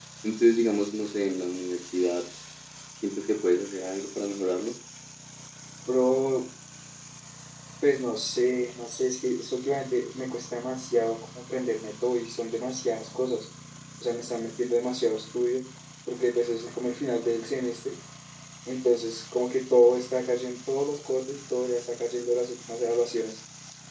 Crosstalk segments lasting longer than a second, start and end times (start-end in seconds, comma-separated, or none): none